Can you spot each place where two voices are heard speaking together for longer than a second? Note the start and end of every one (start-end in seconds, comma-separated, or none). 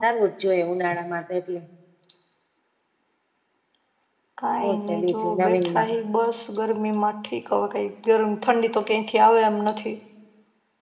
4.6-5.9